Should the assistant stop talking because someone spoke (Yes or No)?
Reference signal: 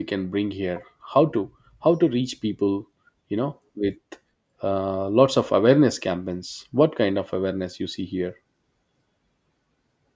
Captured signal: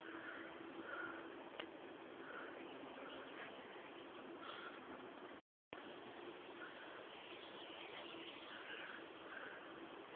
No